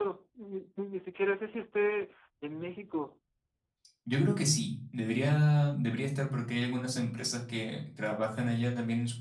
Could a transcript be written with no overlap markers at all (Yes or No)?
Yes